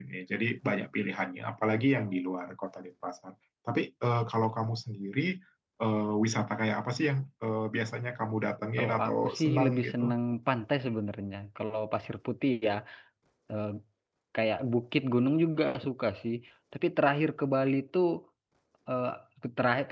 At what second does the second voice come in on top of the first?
8.8 s

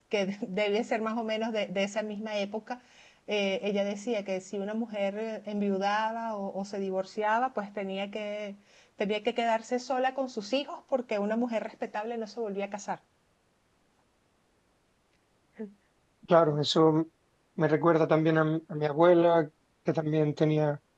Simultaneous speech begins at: none

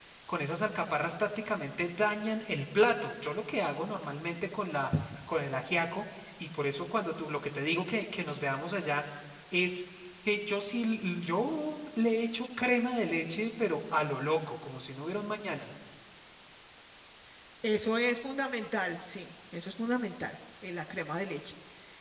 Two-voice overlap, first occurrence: none

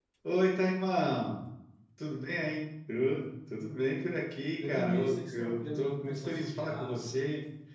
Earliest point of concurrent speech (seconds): 4.6 s

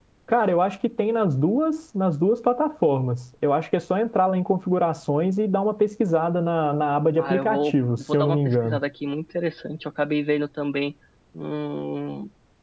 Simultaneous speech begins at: 7.2 s

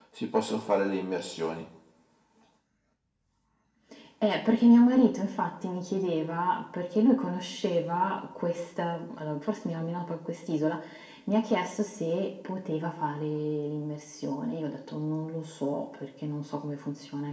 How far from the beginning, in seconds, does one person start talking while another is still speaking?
none

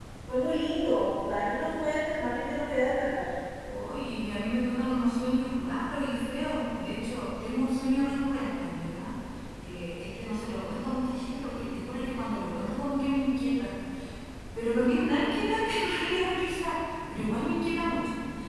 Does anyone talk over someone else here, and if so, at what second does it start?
none

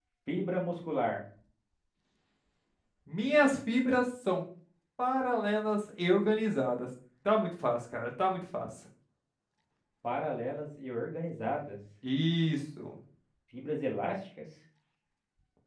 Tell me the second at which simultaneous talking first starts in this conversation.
none

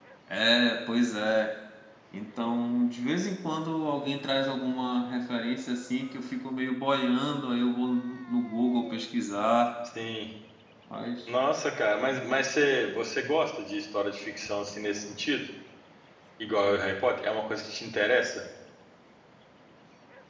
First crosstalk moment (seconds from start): none

